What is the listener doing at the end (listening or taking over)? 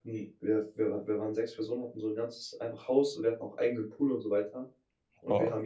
listening